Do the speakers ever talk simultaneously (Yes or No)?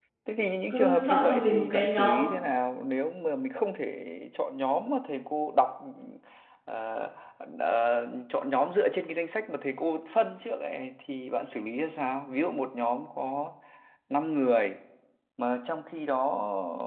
Yes